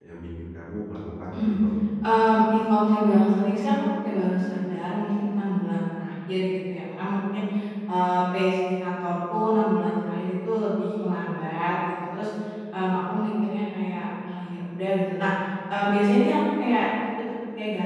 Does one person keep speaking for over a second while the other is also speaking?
No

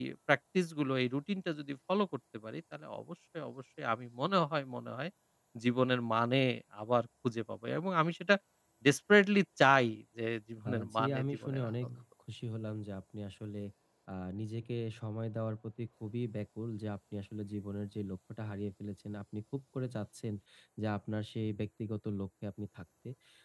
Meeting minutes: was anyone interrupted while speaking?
Yes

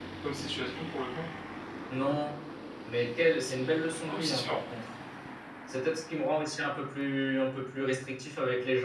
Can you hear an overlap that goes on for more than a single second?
No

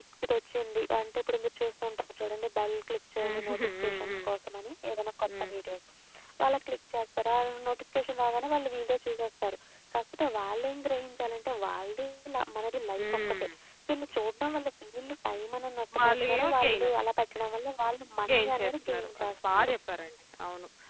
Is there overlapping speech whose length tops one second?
Yes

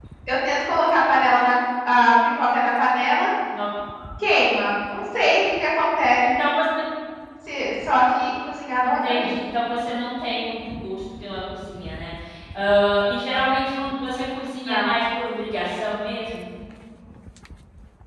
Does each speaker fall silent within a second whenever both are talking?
Yes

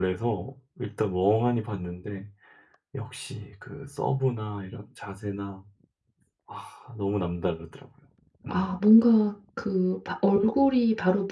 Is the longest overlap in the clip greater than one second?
No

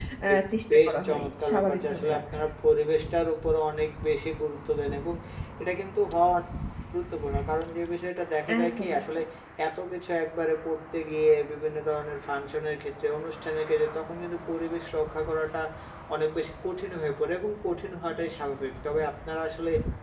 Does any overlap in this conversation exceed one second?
Yes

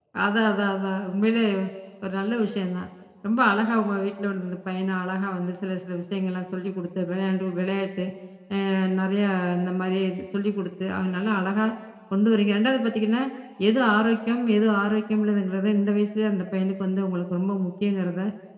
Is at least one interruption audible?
No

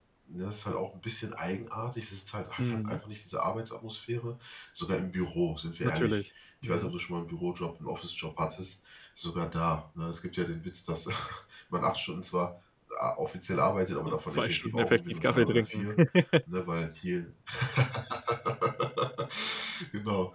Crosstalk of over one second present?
Yes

